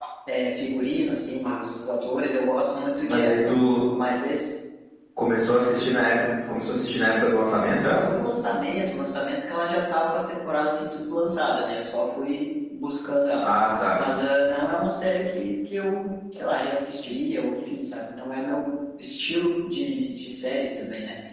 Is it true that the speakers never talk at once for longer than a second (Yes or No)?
Yes